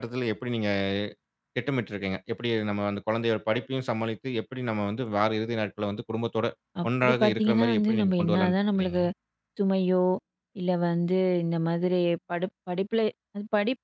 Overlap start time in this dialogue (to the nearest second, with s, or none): 7 s